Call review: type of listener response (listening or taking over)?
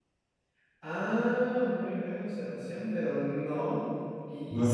listening